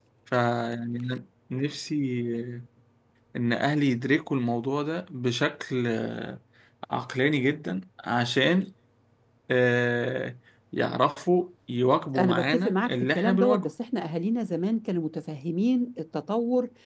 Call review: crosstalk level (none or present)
present